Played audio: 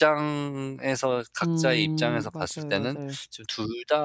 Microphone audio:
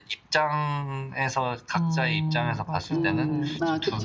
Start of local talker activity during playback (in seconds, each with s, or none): 2.9 s